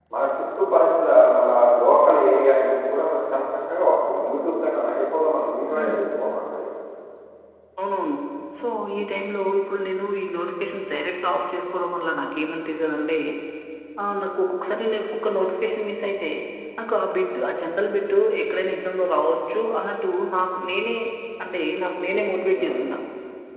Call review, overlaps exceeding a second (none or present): none